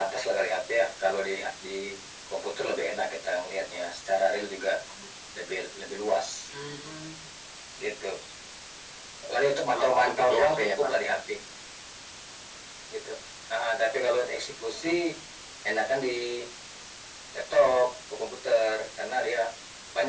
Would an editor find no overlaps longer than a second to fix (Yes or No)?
No